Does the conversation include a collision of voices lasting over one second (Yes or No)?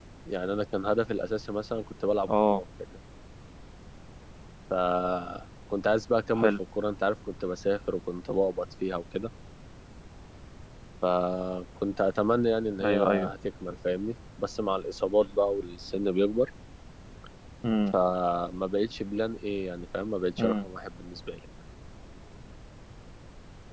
No